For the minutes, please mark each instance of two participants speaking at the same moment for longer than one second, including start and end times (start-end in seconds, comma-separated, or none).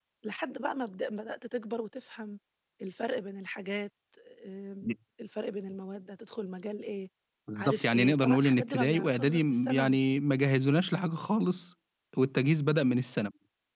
7.6-10.0